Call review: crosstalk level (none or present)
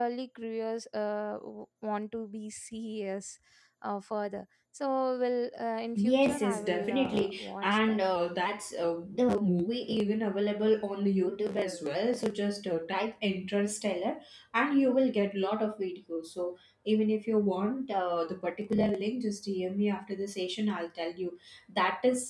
present